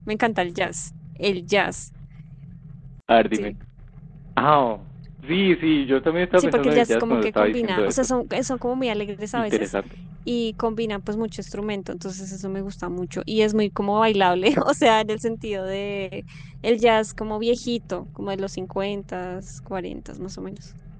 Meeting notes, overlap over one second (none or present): present